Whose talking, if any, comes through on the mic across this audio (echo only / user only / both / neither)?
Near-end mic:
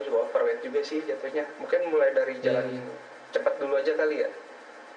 both